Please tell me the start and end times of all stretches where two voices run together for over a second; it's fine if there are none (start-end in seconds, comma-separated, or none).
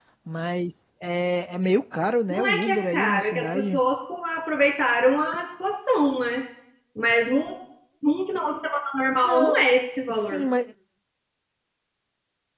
2.3-3.8